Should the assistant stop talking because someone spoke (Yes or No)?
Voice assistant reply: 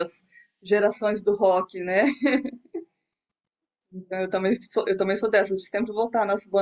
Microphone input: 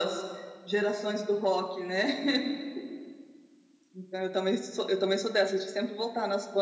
No